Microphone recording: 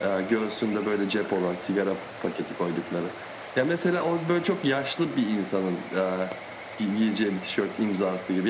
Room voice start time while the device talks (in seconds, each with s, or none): none